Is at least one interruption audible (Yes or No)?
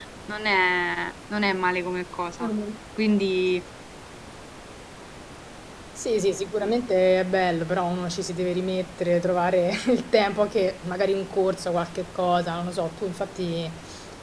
No